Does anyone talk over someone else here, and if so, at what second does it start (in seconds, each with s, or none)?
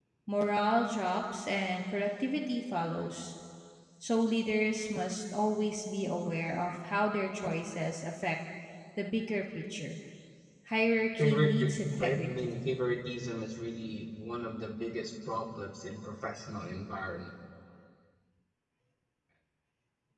11.2 s